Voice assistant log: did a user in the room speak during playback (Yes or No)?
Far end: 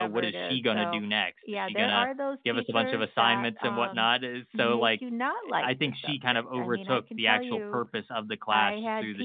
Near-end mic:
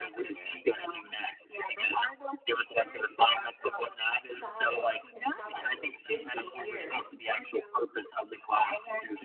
Yes